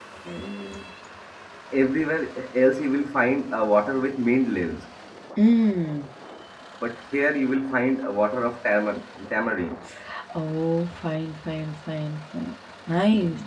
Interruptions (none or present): none